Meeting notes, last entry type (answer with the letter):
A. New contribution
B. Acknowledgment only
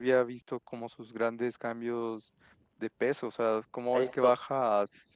B